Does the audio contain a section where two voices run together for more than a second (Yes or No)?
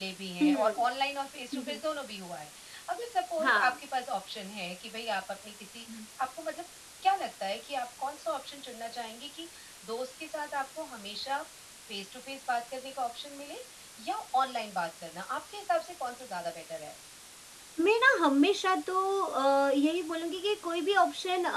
No